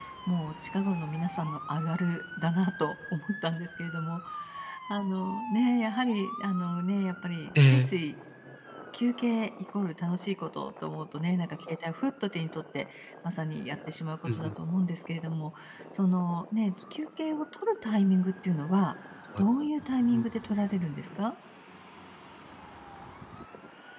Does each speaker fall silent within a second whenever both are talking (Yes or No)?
Yes